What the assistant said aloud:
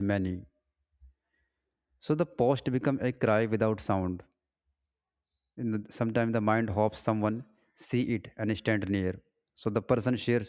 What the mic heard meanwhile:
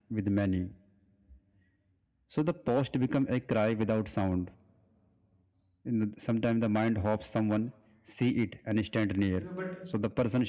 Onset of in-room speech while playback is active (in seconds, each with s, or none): 9.4 s